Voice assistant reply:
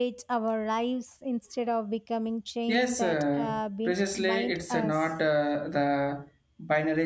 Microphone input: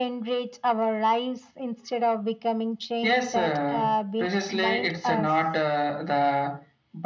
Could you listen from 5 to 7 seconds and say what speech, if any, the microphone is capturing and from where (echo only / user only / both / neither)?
echo only